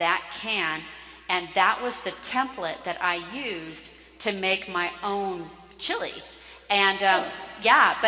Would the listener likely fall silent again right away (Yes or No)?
Yes